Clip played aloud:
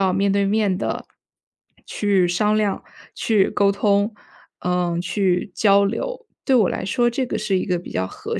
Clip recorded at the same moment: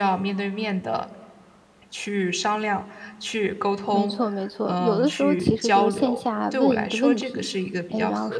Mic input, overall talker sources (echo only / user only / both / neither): both